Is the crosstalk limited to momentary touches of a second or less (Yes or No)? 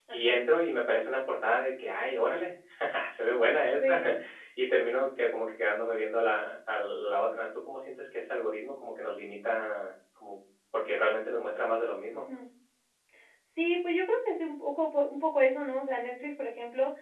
Yes